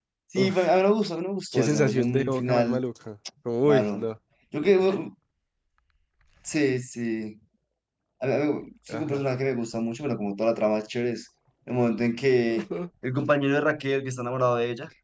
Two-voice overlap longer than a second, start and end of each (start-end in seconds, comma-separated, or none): 1.5-2.8